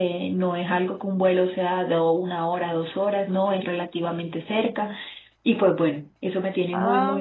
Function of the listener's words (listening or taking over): taking over